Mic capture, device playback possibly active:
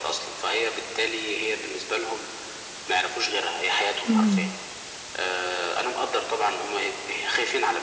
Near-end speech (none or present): present